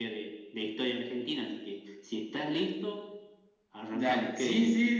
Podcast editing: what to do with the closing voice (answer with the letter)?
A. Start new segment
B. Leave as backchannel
A